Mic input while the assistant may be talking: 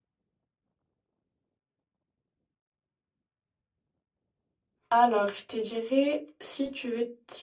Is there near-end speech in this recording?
Yes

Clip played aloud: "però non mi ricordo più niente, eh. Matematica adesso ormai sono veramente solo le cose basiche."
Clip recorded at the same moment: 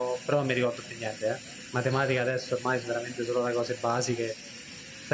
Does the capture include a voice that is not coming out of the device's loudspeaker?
No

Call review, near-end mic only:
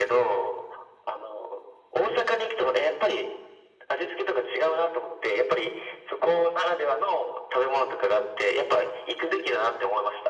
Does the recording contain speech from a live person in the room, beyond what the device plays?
No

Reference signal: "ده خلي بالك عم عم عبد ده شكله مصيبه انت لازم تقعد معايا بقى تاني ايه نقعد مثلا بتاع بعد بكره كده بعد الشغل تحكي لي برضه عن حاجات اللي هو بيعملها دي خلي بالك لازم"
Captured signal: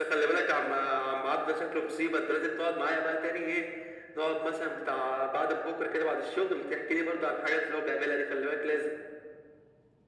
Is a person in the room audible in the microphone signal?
No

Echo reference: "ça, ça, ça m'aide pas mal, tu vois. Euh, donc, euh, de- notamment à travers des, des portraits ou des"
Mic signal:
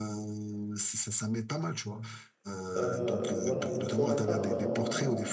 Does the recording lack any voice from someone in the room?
No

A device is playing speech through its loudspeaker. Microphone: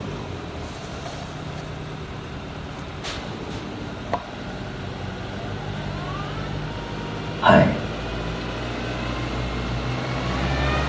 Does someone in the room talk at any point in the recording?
Yes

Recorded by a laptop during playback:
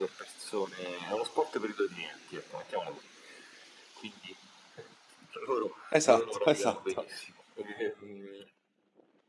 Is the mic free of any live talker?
No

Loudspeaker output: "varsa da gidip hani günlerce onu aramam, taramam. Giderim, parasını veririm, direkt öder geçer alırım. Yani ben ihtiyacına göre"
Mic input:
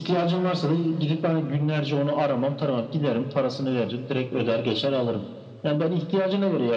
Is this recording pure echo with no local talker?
Yes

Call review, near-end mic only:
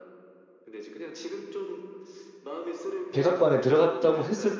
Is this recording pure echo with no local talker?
No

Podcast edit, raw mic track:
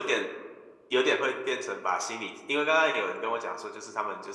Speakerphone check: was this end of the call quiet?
Yes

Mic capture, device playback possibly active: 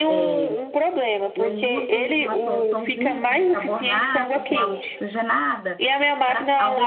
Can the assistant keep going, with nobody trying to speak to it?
No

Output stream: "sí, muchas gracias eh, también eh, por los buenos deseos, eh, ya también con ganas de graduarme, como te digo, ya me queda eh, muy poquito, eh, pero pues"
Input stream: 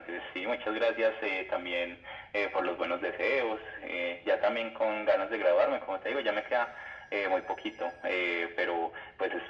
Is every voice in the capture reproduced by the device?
Yes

